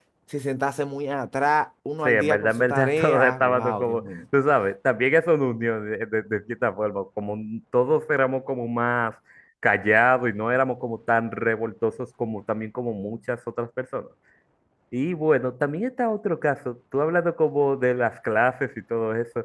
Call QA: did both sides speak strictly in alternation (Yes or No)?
No